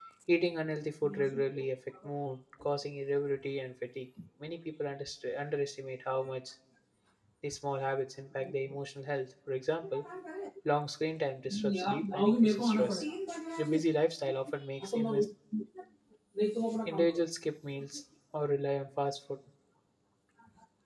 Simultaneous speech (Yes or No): Yes